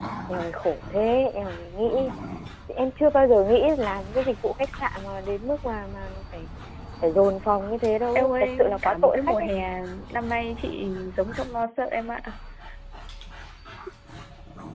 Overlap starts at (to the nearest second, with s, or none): 8 s